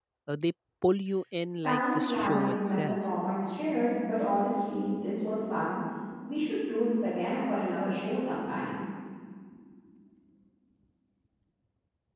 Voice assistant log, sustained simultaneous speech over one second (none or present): present